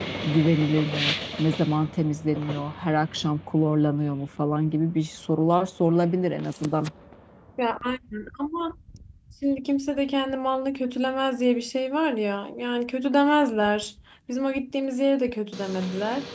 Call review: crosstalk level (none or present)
none